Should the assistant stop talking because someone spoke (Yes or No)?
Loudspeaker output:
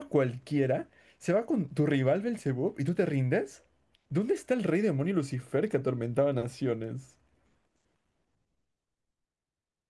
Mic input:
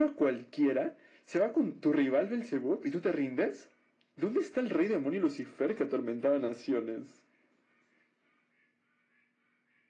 No